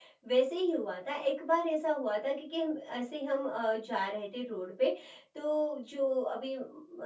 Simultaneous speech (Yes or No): No